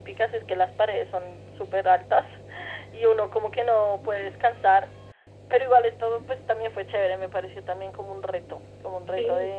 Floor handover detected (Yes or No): No